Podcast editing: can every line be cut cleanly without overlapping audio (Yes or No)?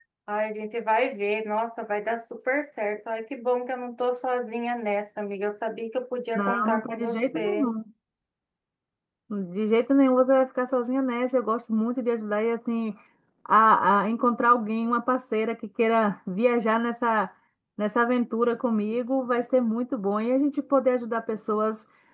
No